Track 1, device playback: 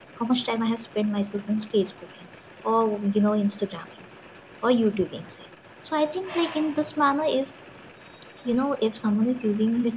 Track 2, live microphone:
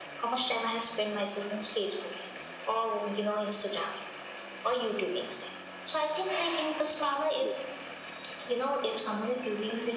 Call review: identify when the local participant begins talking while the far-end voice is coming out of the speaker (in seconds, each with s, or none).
7.4 s